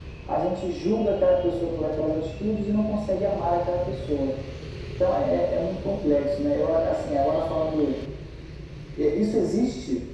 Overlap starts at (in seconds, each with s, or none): none